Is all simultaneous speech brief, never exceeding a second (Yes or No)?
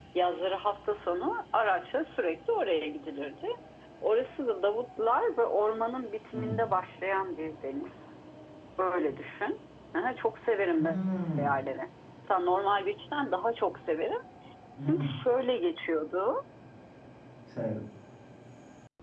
Yes